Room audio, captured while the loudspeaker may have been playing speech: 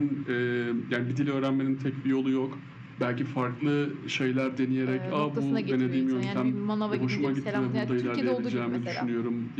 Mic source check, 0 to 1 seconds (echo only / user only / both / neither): echo only